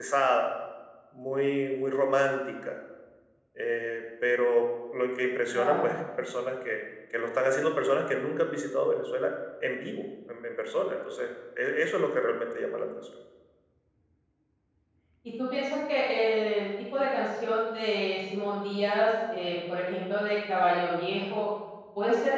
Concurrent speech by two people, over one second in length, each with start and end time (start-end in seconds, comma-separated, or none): none